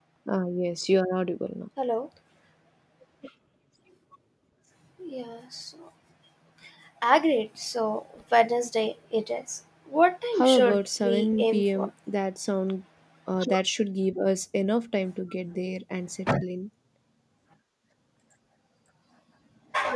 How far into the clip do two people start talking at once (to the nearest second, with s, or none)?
10 s